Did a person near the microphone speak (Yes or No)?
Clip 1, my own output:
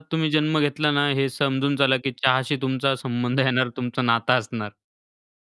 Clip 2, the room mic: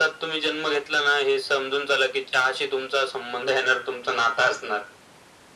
No